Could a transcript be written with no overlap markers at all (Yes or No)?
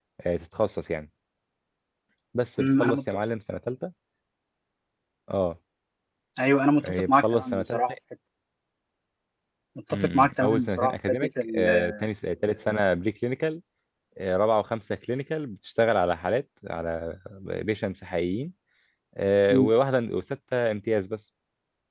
No